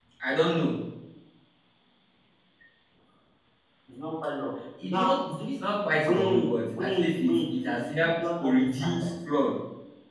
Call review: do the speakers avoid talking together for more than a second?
No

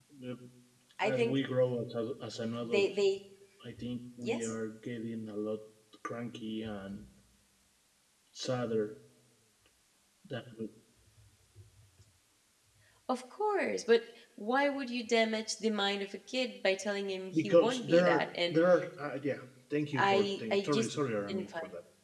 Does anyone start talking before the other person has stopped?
Yes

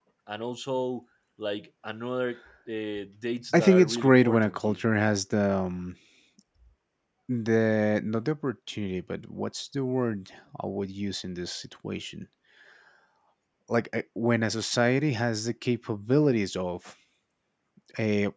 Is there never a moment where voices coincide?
No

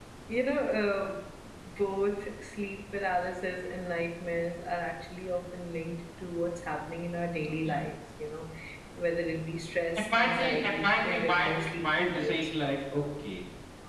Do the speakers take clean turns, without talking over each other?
No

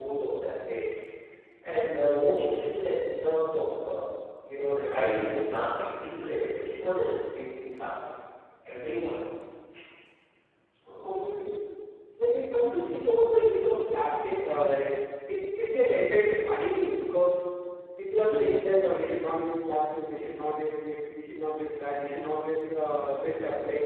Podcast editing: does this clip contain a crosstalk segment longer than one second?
No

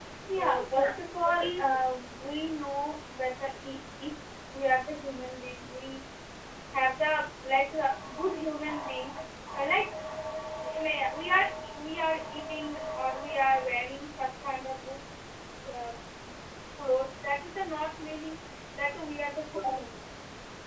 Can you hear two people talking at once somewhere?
Yes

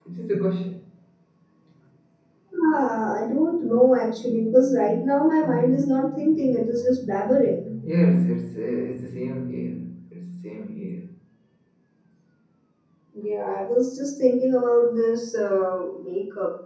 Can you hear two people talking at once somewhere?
No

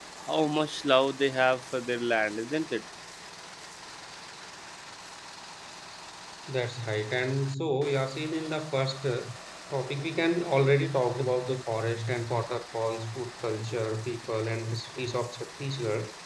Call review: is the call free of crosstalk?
Yes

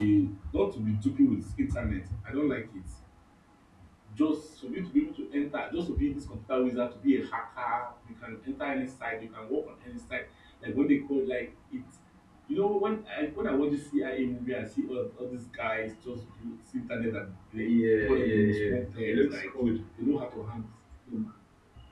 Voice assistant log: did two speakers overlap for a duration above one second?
Yes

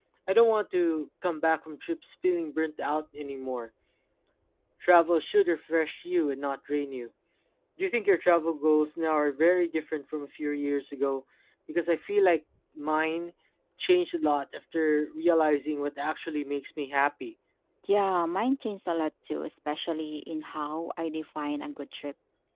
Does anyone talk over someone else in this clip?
No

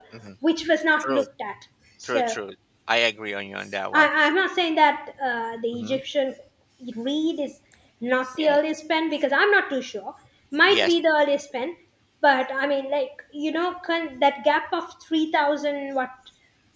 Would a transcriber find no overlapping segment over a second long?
Yes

